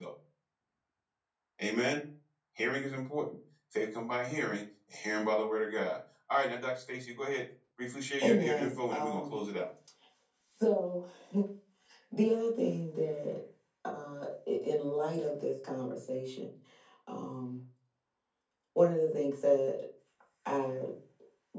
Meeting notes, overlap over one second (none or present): present